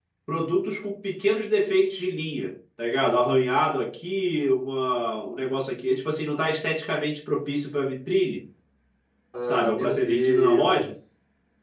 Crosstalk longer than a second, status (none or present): present